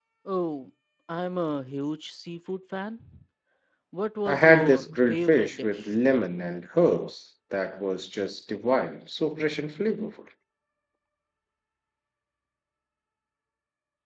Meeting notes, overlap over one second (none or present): present